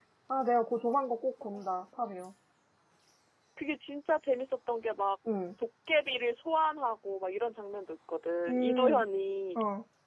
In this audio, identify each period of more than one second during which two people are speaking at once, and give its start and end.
none

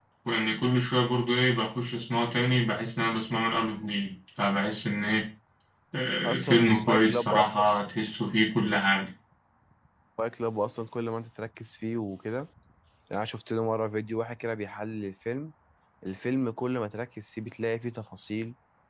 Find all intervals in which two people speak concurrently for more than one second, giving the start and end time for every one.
6.2-7.6

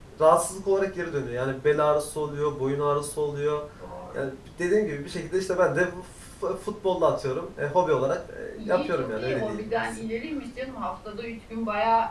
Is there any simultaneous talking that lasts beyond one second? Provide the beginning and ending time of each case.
8.6-10.0

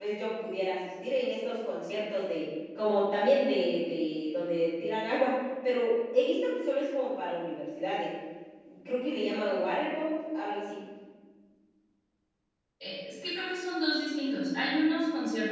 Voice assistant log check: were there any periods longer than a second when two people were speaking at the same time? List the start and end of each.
none

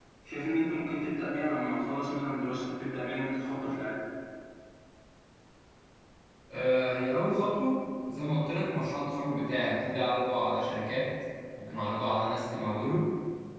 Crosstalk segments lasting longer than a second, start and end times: none

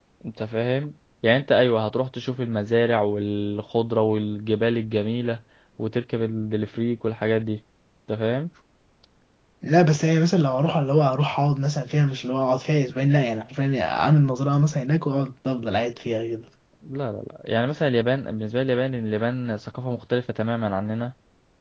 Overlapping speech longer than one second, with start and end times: none

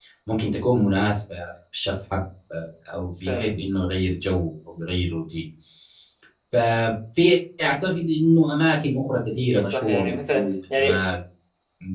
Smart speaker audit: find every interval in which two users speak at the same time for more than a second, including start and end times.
9.4-11.1

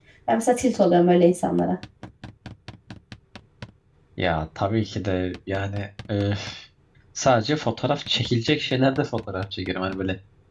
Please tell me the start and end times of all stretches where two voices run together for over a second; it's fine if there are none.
none

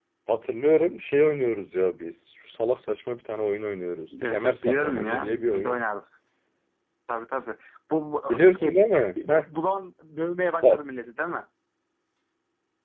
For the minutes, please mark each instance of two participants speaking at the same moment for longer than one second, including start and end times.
4.2-5.8

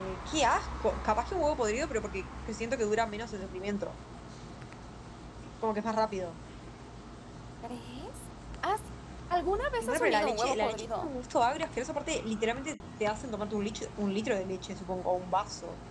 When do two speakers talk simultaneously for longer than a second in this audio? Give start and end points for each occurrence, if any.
9.8-11.1

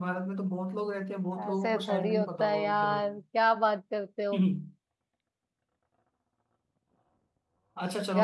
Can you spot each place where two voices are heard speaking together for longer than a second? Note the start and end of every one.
1.4-3.2

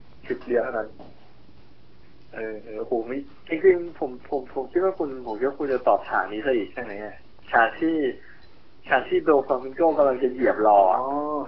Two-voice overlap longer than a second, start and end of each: none

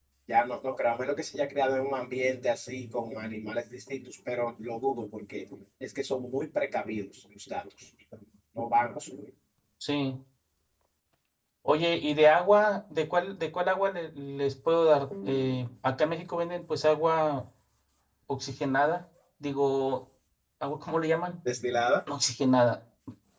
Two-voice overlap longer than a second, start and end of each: none

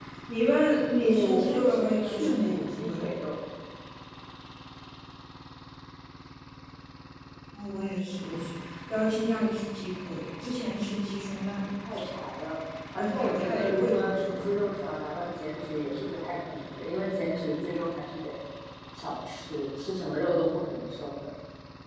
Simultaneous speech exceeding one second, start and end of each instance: 1.0-3.0, 12.9-14.7

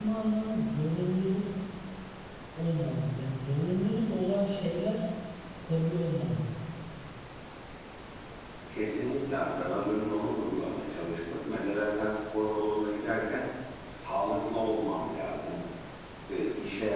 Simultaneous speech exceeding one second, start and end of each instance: none

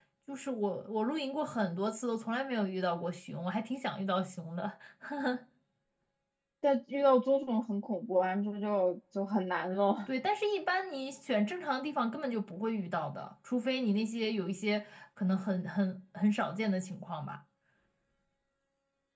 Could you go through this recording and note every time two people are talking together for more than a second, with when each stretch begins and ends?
none

